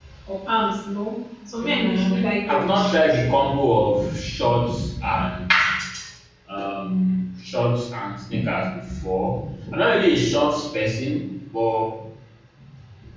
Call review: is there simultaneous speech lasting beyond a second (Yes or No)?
Yes